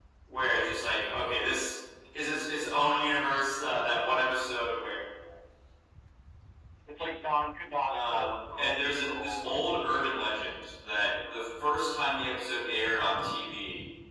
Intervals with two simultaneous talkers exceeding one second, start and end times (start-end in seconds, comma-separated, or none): 7.9-9.6